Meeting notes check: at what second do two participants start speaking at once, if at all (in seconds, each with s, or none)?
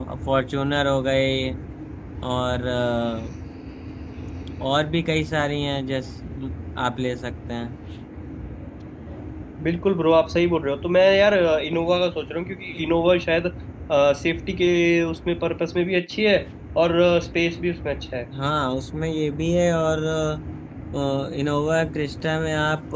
none